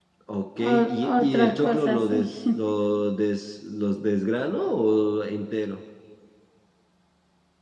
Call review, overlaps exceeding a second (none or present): present